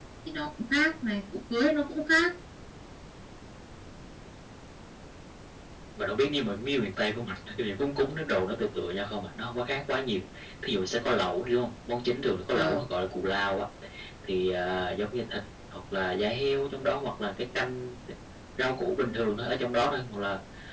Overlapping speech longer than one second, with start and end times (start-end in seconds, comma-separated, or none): none